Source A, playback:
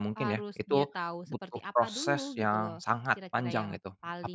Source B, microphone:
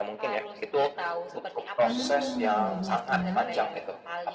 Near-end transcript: Mmm, bener sih, Mas.

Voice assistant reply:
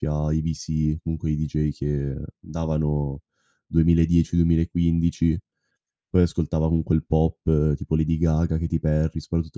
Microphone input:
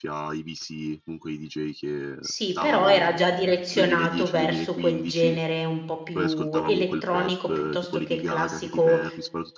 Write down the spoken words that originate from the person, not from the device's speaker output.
Sì, però era già direzionato verso quel genere un po' più elettronico, piuttosto che il classico,

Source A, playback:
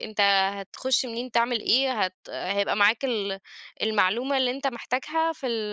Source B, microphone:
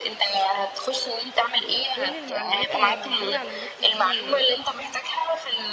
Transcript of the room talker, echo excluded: كل المعلومات اللي موجودة على النت دي،

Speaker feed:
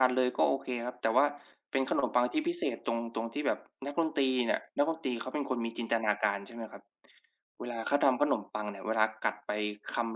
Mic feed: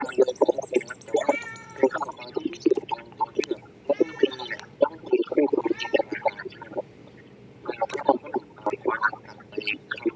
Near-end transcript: none

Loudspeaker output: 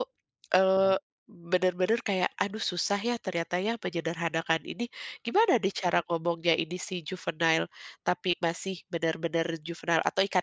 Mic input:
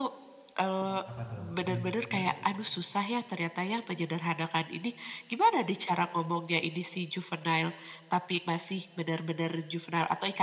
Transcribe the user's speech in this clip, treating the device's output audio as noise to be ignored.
Apa tuh trim heeh?

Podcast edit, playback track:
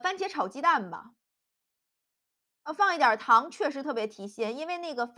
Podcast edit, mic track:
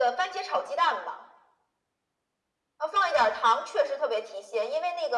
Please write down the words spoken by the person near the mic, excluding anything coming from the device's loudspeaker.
none

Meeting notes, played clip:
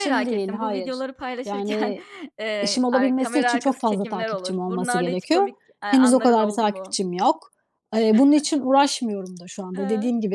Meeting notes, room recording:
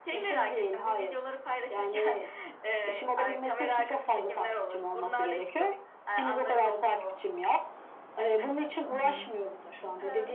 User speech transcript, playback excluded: Hı hı.

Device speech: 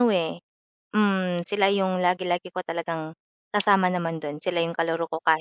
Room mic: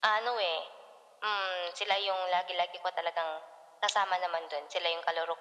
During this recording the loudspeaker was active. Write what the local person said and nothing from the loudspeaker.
none

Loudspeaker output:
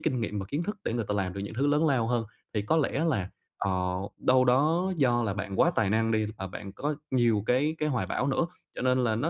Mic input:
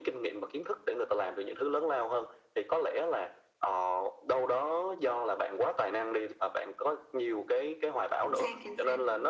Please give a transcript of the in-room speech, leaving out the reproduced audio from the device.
Chính xác, chính xác.

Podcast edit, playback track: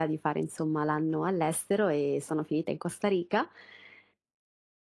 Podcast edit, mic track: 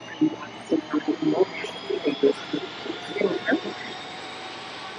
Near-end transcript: none

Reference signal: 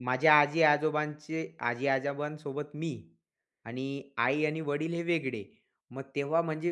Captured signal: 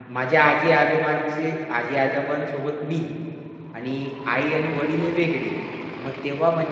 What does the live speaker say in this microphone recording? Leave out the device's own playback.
none

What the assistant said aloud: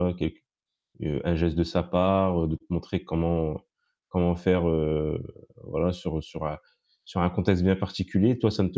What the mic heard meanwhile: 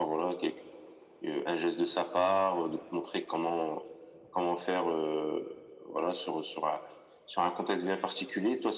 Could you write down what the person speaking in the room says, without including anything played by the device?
none

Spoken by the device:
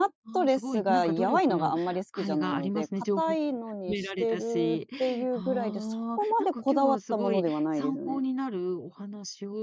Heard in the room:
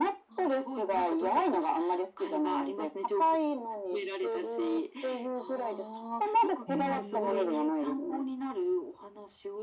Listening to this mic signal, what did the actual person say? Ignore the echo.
へえ、

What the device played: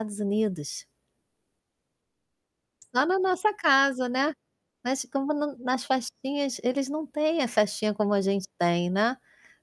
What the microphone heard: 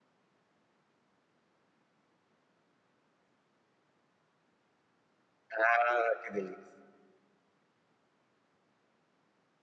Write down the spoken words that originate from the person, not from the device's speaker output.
Ah, que delícia!

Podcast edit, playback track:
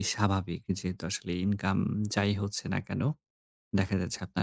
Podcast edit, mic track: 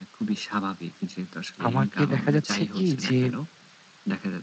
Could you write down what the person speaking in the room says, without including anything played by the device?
আমাকে দেখা যাচ্ছে কী, যে

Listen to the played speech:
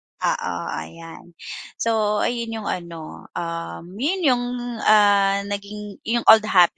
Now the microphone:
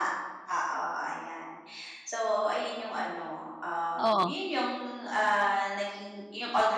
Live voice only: Oo.

